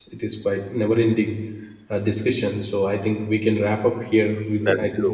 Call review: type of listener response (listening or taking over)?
listening